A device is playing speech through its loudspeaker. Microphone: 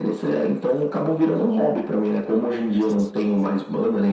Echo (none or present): present